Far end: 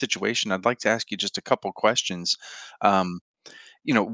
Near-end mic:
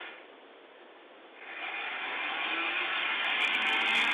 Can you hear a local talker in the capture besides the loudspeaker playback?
No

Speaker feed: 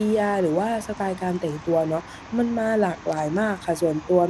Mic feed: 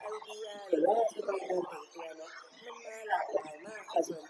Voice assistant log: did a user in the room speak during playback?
No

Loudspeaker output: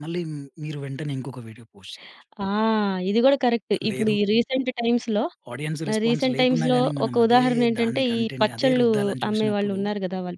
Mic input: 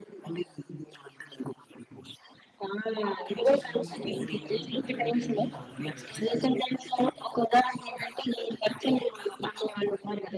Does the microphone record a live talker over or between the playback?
Yes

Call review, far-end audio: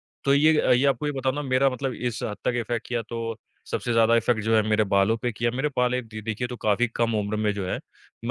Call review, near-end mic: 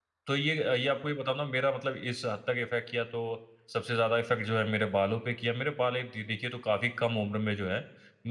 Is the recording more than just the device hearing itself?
No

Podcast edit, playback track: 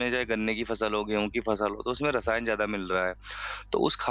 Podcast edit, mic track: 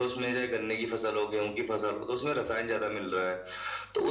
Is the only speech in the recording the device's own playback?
Yes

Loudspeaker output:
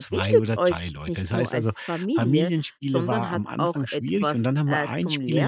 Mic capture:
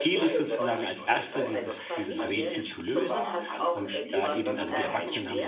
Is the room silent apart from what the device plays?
No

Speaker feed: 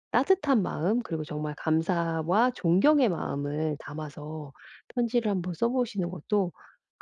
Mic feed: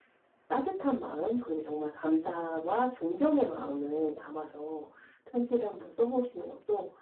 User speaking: No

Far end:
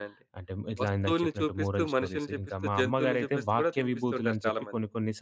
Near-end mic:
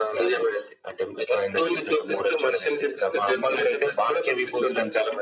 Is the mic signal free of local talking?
Yes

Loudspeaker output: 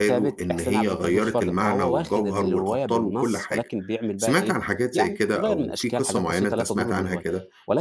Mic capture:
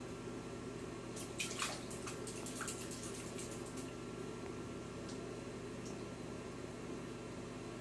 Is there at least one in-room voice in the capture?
No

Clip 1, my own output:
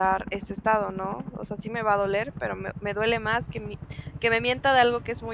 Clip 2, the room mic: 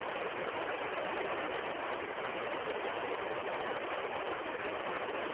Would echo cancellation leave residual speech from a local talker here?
No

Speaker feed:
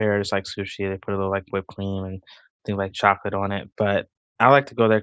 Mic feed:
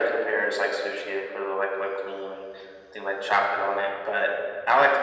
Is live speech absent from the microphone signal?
Yes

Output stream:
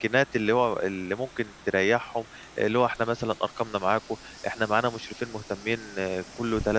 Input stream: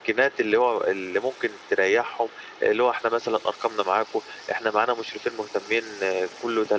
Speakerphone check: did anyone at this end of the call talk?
No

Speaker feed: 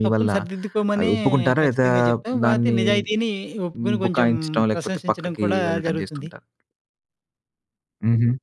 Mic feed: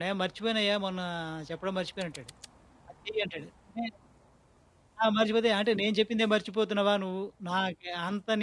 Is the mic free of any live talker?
No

